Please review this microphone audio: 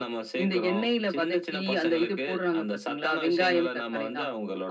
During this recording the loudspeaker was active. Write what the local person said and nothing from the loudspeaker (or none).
none